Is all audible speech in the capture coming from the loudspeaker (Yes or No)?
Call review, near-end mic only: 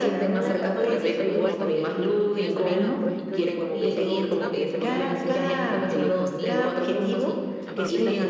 No